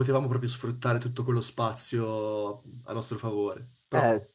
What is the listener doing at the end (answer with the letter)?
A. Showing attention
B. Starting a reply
B